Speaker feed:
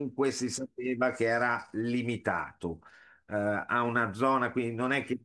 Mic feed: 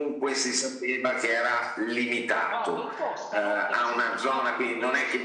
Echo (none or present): present